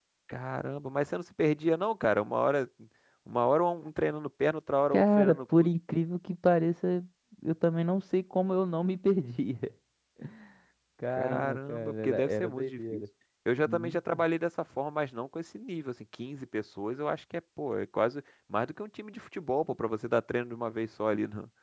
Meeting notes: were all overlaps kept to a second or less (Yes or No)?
No